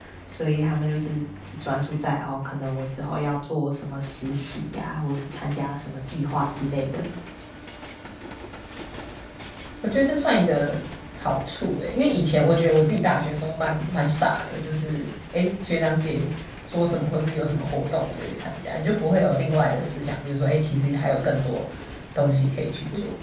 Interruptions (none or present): none